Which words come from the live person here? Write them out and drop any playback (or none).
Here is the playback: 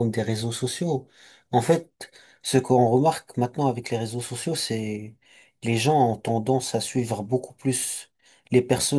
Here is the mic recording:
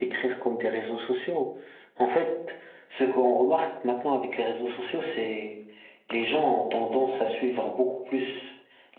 none